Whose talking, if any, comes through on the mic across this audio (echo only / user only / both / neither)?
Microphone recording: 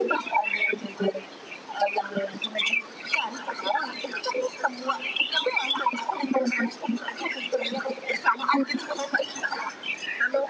echo only